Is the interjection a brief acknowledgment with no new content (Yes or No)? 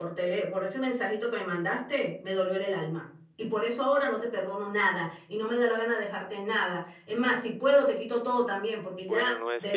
No